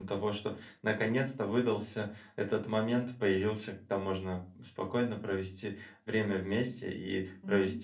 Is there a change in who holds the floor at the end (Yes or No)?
No